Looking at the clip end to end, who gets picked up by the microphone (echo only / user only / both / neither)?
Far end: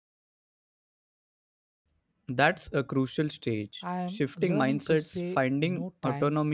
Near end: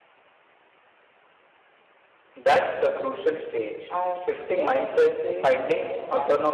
both